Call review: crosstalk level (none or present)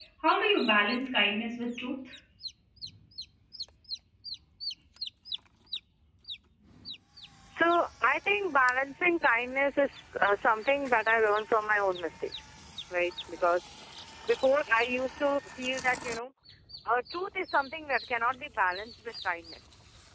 none